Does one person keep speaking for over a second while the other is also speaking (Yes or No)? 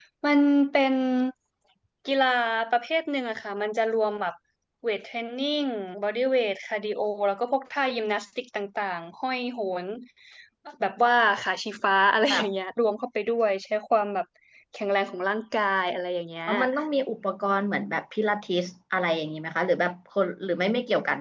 No